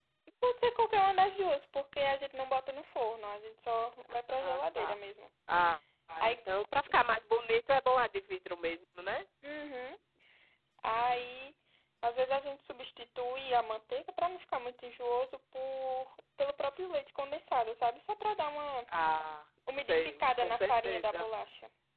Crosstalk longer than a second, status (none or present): present